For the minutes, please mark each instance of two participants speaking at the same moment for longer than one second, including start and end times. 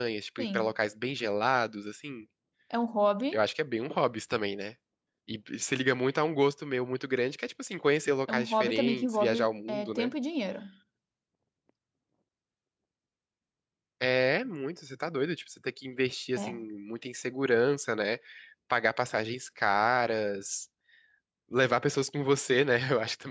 8.3-10.1

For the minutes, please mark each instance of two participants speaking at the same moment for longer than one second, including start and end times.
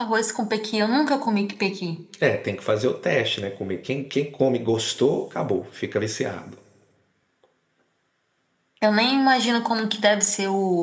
none

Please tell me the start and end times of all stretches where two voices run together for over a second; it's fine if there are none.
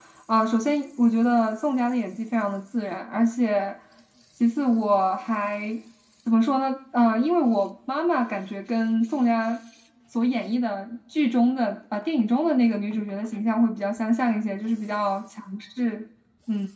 none

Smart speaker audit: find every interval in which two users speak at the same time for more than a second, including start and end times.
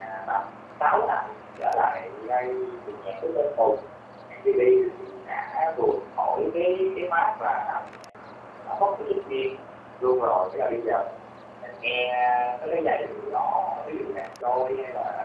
none

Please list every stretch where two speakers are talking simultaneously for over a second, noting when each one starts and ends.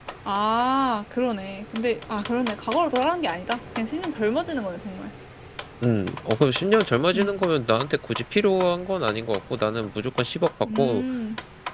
none

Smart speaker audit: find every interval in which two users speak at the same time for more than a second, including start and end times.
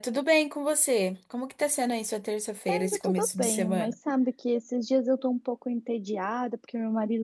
2.7-3.9

